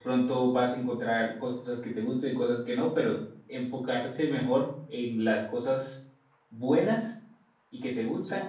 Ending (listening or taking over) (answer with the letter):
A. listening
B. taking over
A